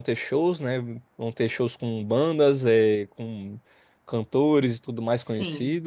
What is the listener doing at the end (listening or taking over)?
listening